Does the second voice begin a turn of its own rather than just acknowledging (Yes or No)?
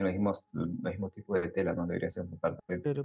Yes